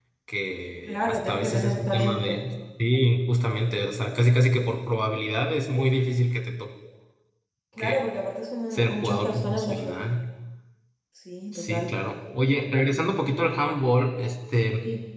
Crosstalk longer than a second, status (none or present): present